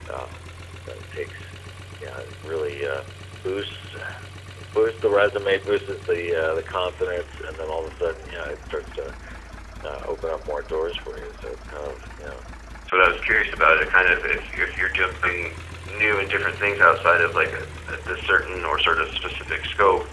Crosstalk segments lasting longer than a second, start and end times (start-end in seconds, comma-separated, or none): none